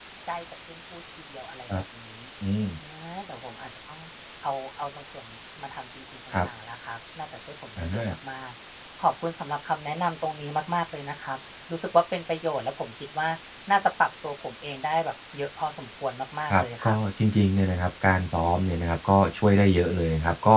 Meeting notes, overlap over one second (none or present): none